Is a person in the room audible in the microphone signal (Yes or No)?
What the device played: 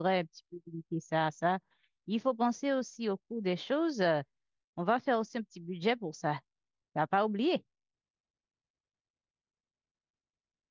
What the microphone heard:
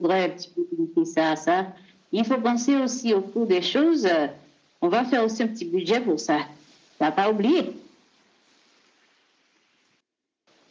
No